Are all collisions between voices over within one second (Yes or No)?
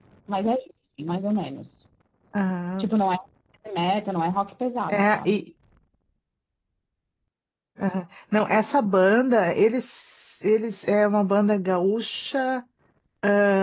Yes